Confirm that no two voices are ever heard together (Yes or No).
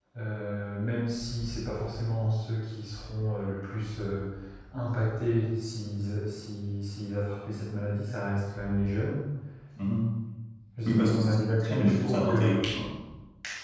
No